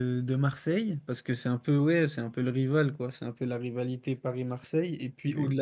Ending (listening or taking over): listening